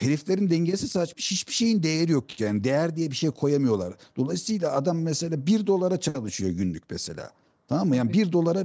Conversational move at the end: listening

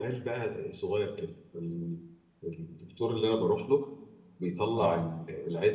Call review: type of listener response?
listening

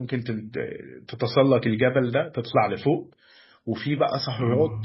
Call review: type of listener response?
listening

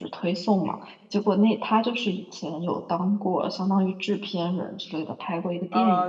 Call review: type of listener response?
taking over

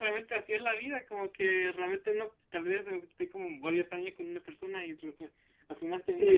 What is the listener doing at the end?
taking over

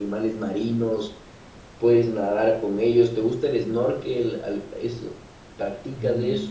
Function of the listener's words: taking over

